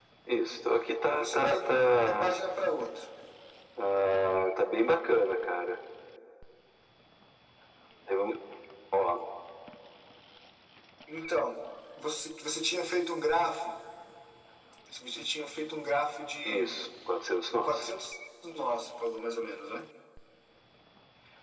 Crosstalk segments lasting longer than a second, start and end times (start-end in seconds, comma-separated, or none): 1.1-2.3